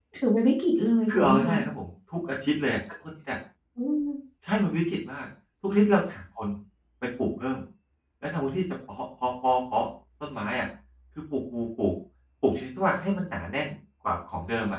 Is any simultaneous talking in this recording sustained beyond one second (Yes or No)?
No